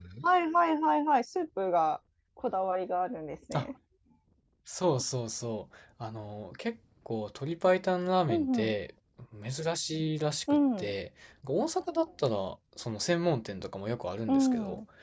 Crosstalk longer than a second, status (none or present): none